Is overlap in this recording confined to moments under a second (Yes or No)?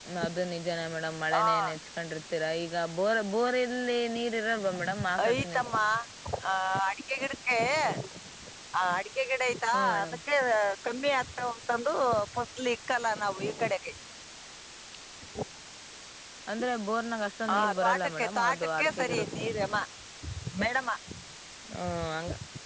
No